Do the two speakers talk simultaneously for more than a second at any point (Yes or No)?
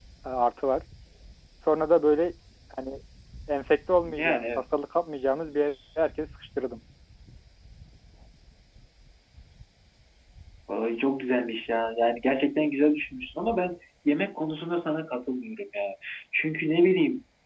No